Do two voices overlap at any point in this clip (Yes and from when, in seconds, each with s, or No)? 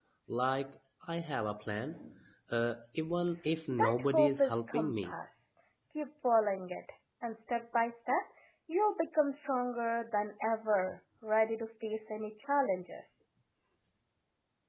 Yes, from 3.7 s